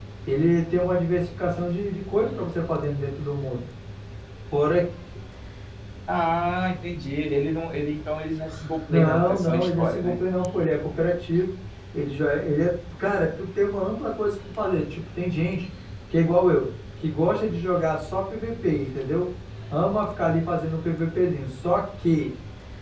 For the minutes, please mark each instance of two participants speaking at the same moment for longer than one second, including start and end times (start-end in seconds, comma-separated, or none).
8.9-10.2